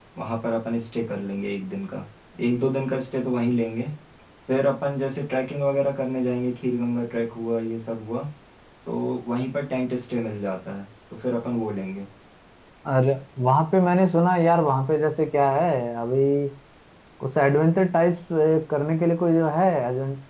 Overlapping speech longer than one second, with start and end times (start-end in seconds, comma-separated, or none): none